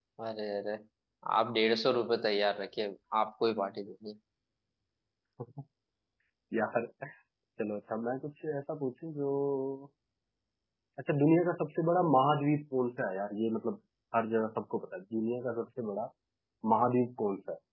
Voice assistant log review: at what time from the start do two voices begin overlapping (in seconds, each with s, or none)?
none